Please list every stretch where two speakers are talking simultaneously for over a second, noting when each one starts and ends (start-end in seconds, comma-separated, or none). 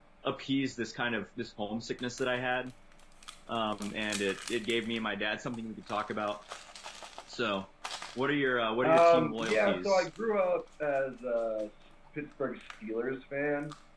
8.8-10.1